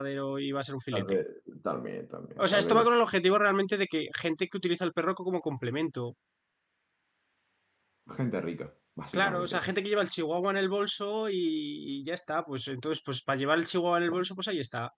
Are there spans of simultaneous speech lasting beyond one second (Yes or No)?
No